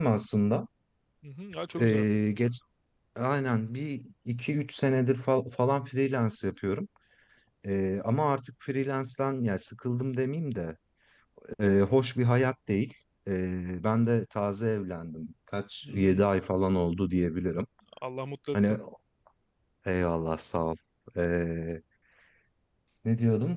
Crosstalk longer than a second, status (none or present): none